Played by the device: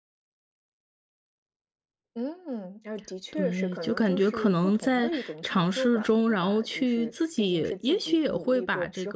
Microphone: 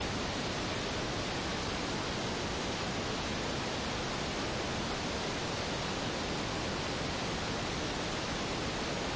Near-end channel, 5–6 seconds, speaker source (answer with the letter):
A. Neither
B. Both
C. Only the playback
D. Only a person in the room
A